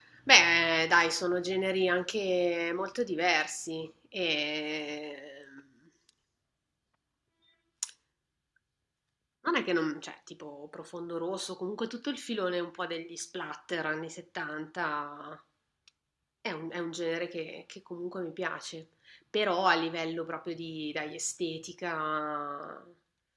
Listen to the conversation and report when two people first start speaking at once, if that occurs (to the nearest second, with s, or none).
none